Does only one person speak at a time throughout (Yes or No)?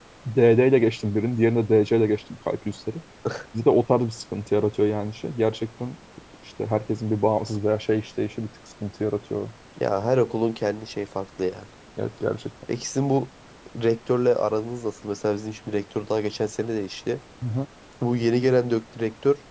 Yes